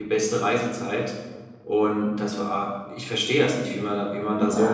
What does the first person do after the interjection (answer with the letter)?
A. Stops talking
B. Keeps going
A